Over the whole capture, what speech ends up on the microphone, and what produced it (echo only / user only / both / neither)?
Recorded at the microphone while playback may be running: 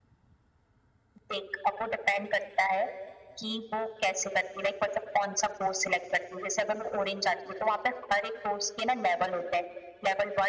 echo only